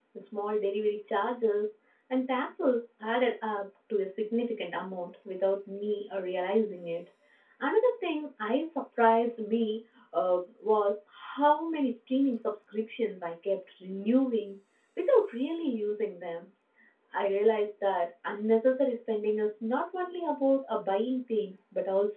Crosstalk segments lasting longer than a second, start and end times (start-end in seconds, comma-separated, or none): none